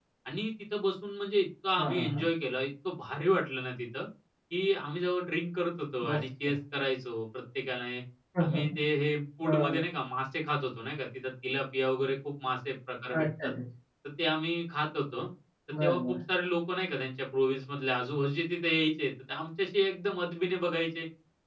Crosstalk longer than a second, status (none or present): none